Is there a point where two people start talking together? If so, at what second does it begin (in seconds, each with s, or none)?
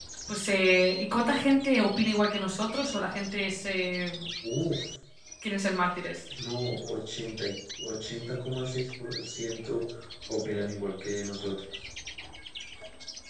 none